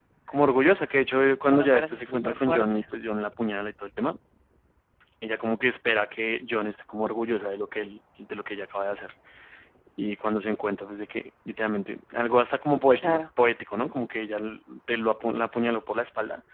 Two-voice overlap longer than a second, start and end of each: 1.4-2.8

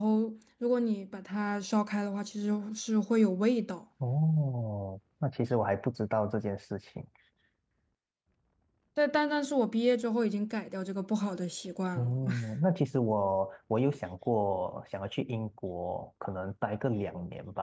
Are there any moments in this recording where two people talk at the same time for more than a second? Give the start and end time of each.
none

